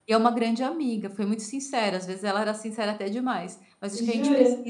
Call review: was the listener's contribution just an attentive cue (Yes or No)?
Yes